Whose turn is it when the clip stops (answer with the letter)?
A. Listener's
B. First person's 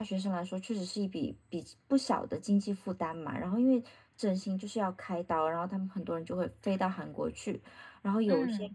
B